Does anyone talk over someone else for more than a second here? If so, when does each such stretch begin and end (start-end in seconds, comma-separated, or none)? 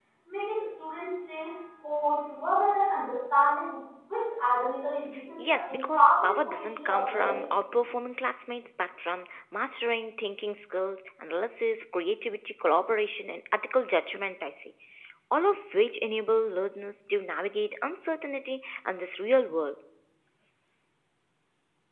5.4-7.4